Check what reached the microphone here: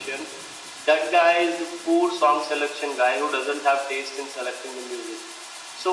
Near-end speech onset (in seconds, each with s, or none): none